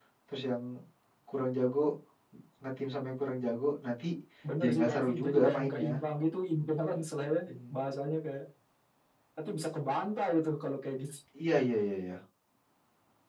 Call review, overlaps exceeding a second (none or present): present